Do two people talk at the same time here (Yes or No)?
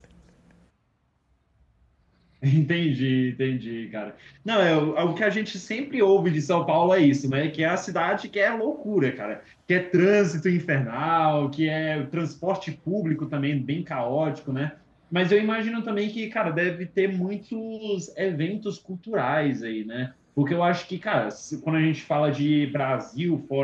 No